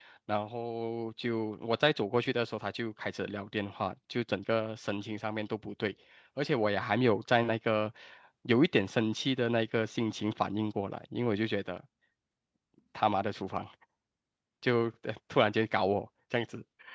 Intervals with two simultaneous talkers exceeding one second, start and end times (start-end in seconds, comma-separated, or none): none